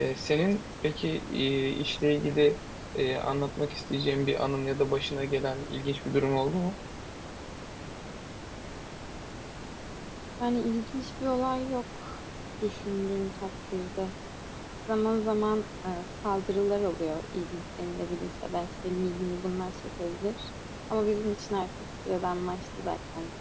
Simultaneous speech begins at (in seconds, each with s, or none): none